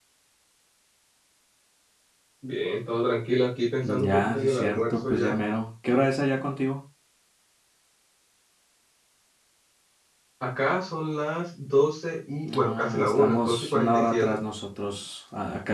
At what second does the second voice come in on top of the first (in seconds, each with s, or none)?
3.8 s